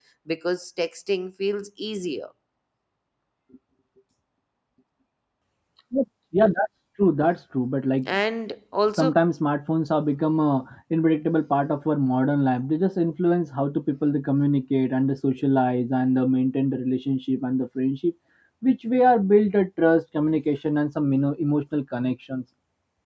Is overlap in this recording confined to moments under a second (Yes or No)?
Yes